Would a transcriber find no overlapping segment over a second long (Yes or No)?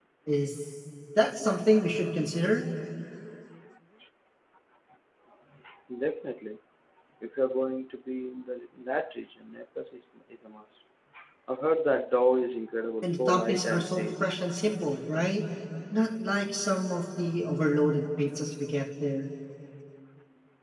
No